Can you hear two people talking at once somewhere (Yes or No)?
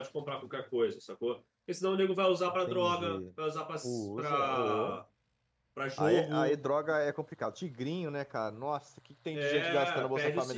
Yes